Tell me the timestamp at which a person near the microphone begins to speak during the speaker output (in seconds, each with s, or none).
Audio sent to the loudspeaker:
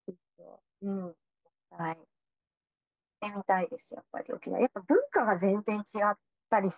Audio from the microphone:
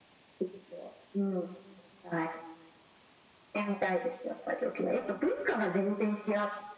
none